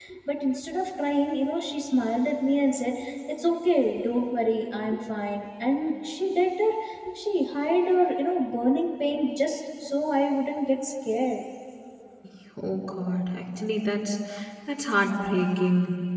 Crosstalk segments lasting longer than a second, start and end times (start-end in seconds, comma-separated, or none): none